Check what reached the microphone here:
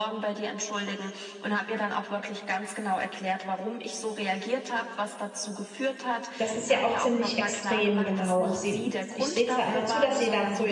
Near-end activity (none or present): present